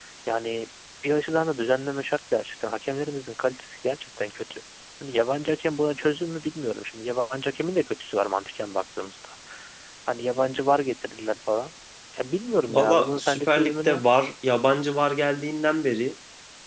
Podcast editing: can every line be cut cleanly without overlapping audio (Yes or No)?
No